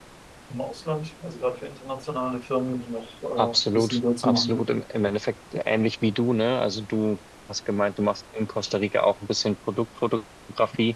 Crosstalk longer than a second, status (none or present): present